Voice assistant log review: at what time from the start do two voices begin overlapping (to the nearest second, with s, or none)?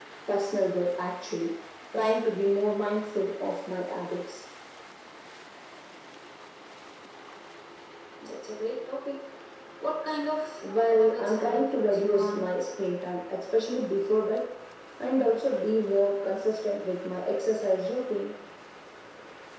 11 s